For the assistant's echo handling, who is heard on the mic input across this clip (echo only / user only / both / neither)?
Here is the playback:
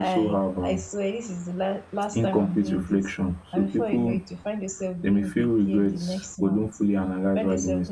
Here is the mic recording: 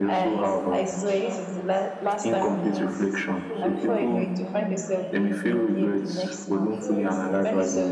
both